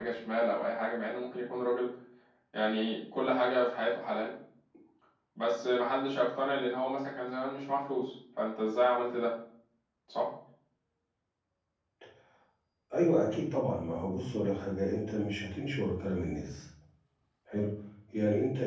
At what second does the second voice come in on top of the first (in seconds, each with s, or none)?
none